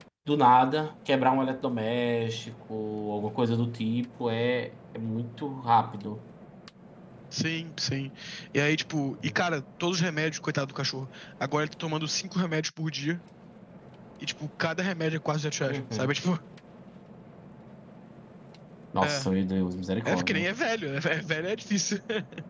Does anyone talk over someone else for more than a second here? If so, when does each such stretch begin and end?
none

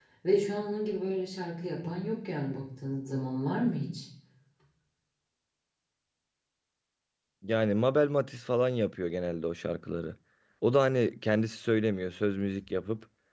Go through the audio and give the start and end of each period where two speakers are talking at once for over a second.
none

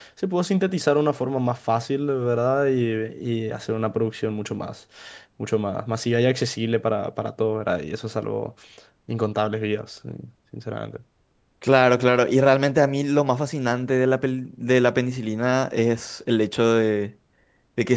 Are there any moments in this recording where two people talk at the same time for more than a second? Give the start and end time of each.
none

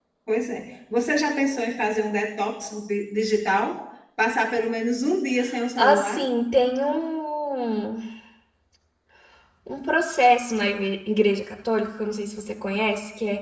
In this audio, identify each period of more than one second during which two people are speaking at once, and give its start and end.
none

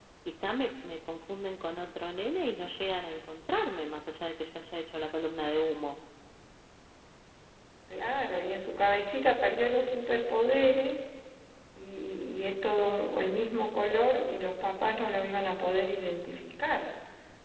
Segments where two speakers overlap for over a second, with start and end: none

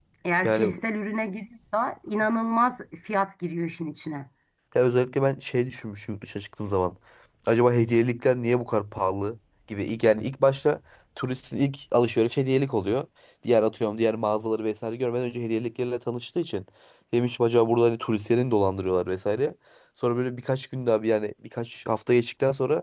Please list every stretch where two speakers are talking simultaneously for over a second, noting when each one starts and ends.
none

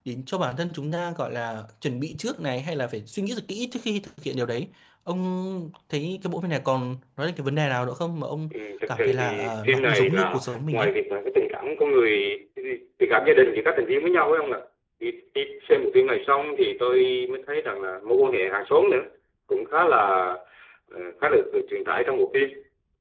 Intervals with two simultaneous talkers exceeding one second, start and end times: 8.9-10.9

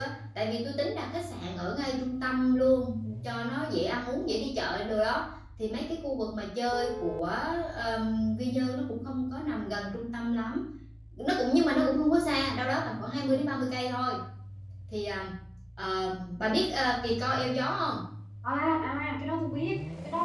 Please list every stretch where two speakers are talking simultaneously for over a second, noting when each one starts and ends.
none

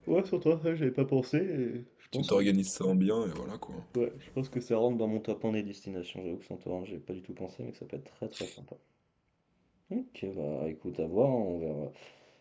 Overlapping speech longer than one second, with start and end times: none

